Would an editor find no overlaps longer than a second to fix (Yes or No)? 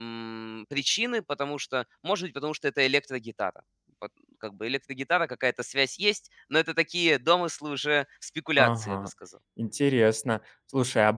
Yes